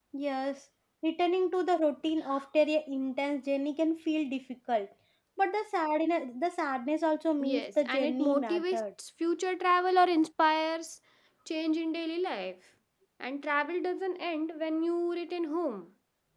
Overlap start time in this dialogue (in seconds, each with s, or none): 7.4 s